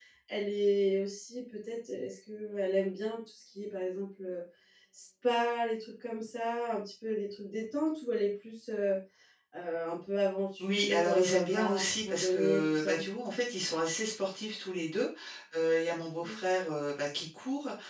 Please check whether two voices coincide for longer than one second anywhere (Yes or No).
Yes